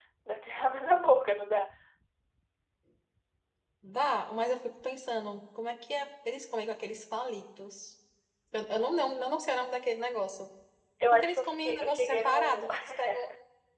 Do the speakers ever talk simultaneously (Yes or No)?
Yes